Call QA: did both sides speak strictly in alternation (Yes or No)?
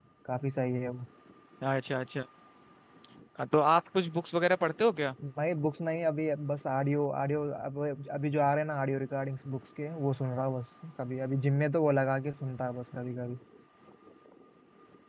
Yes